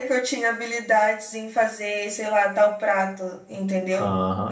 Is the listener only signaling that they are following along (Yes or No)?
No